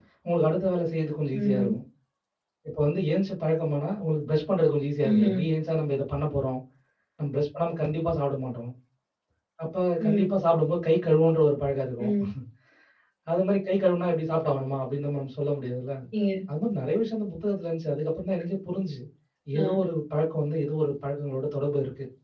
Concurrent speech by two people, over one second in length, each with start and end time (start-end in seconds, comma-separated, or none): none